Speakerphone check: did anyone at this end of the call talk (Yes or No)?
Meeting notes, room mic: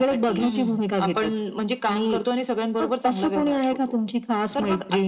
Yes